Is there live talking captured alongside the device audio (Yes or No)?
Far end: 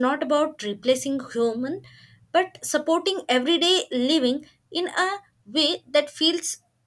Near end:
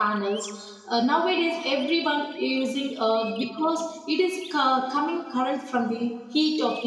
Yes